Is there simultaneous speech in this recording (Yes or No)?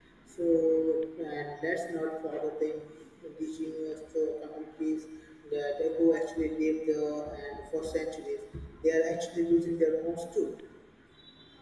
No